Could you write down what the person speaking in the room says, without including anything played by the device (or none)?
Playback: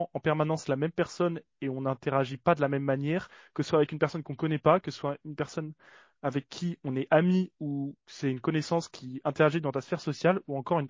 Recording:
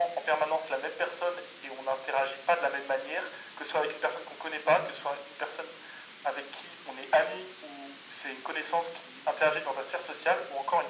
none